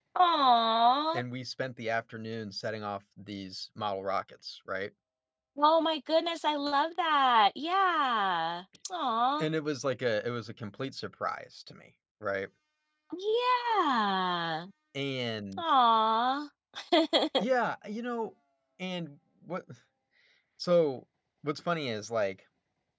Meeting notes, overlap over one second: none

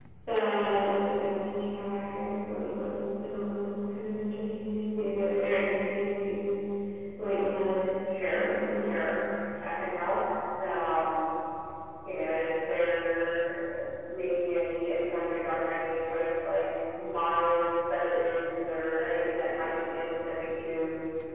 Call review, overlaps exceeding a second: none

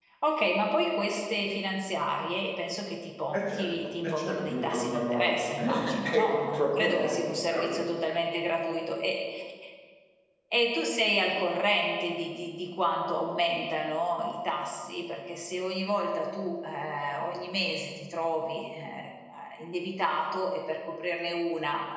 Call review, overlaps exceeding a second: present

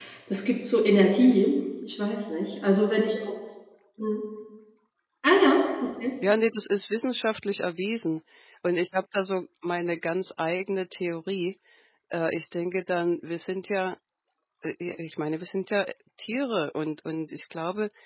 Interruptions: none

